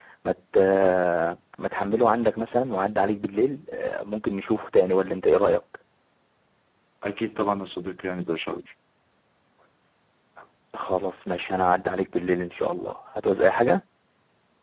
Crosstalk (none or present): none